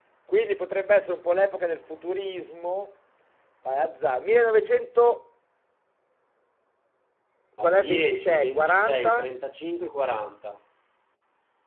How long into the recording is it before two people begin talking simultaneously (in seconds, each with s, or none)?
7.6 s